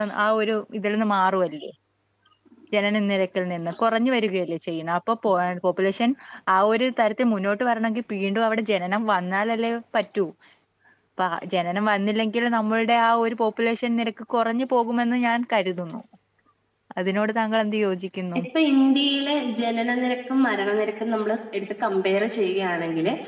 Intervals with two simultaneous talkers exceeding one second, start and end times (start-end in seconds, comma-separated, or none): none